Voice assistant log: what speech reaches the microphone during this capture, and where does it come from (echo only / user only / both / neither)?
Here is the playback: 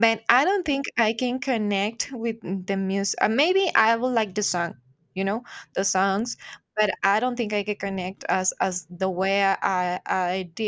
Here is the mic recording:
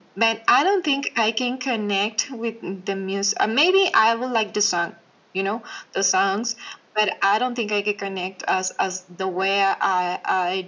echo only